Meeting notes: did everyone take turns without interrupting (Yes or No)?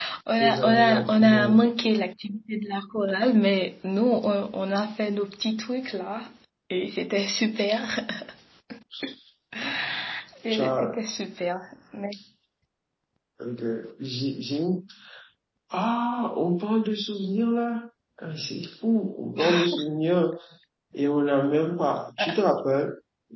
No